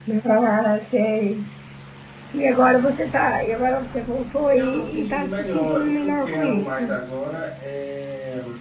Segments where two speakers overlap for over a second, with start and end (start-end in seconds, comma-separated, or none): 4.5-6.9